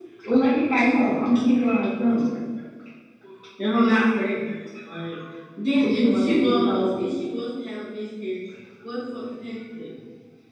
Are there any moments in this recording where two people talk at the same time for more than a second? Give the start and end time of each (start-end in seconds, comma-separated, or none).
5.8-7.1